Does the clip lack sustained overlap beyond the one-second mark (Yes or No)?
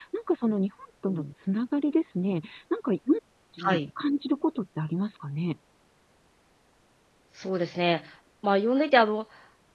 Yes